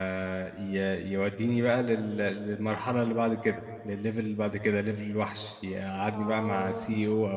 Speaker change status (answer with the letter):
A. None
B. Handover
A